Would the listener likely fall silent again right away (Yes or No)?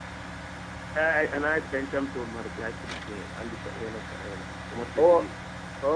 No